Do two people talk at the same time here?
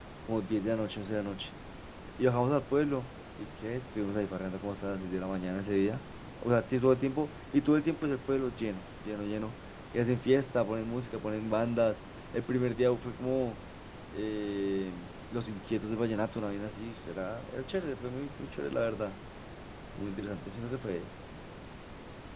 No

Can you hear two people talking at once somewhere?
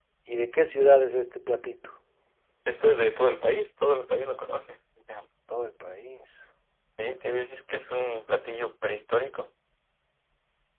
No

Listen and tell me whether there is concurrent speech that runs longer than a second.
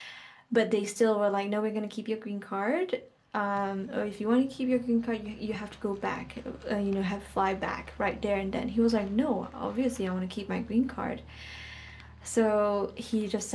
No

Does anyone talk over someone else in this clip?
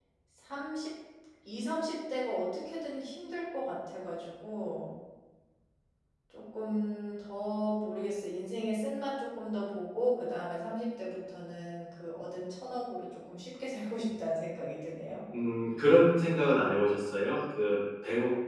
No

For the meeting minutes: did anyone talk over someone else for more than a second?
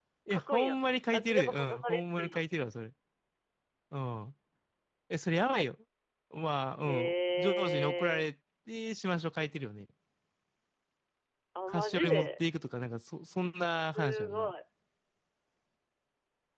Yes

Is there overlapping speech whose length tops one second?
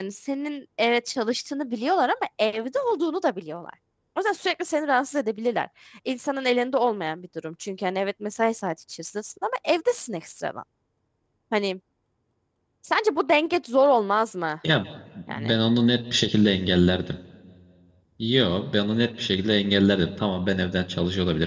No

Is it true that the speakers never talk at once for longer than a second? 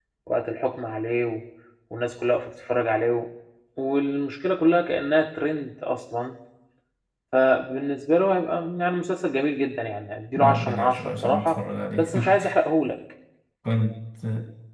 No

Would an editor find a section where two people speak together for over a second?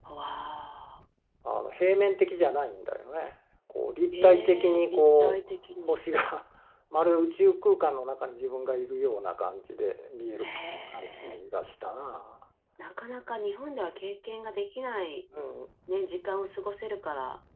Yes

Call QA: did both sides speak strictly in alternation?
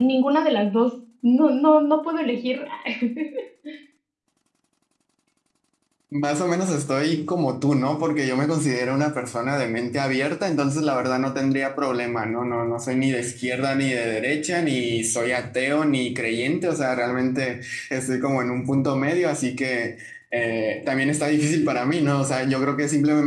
Yes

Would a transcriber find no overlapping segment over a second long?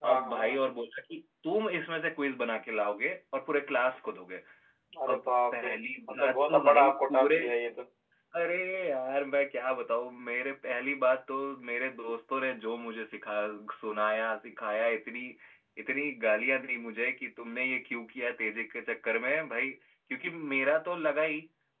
No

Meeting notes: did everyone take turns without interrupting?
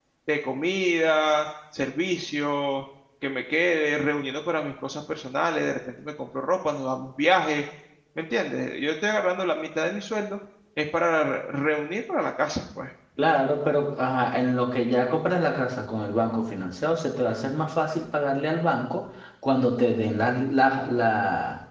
Yes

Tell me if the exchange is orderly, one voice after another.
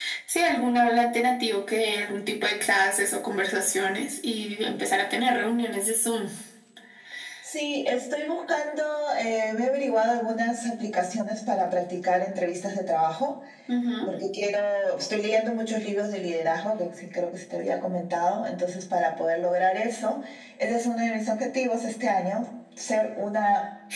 Yes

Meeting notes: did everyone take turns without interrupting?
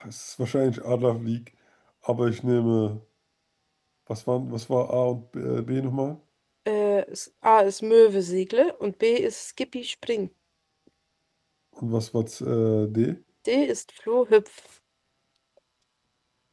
Yes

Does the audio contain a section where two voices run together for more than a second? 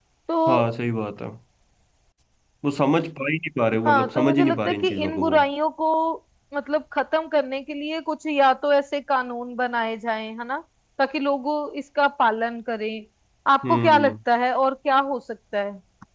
Yes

